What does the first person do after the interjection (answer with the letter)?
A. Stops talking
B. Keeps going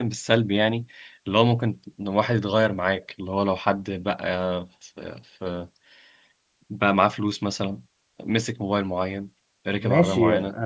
A